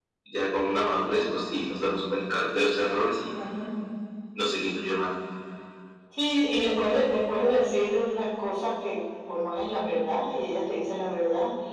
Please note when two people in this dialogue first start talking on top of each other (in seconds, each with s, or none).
none